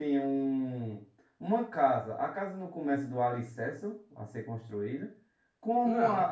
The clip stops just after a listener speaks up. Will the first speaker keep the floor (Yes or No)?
Yes